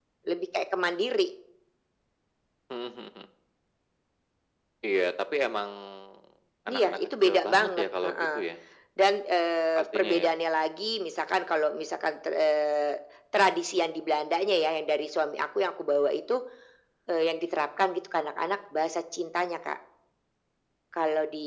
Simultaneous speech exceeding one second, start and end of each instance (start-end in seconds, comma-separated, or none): 6.7-8.3